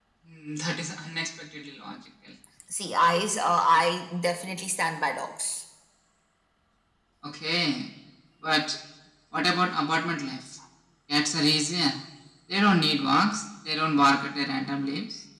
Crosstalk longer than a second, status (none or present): none